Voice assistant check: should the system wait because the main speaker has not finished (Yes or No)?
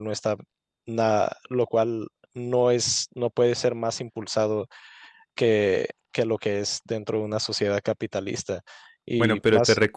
No